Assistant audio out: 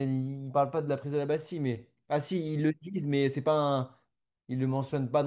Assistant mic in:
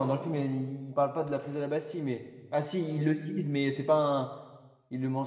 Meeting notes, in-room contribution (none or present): none